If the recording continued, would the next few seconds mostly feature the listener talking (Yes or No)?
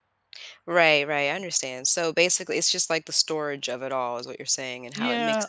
Yes